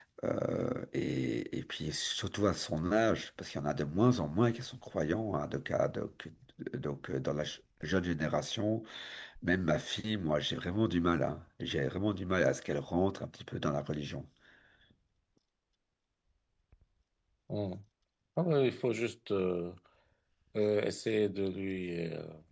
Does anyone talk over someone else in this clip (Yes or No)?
No